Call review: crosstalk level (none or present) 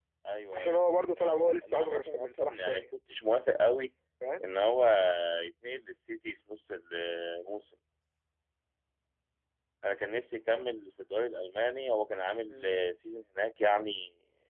present